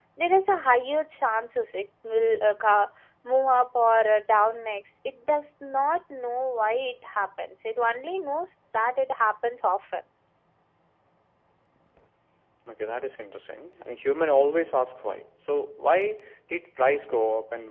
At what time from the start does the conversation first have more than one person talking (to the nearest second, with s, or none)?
none